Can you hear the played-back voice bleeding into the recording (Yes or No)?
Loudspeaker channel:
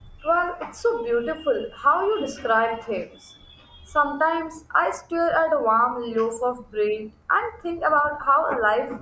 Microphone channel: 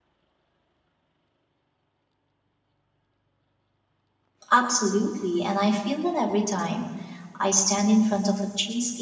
No